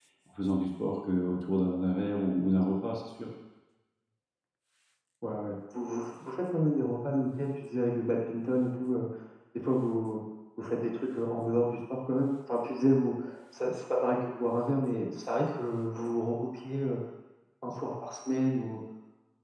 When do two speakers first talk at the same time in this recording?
none

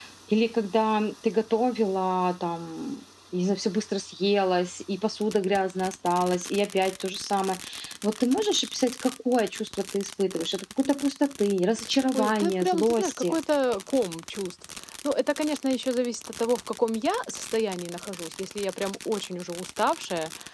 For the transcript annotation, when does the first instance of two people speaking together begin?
12 s

